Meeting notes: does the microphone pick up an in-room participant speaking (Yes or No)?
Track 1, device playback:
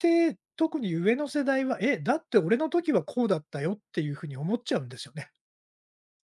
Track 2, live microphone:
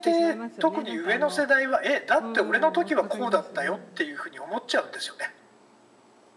Yes